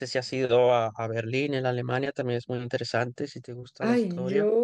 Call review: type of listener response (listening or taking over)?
taking over